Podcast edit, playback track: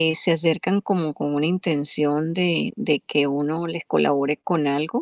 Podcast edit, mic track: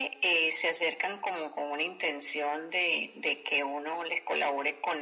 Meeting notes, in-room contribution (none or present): none